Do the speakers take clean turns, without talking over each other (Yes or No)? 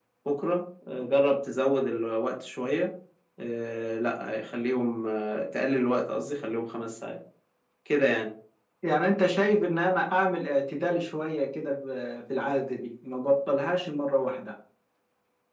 Yes